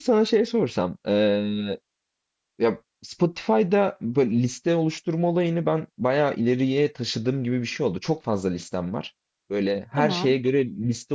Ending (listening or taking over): listening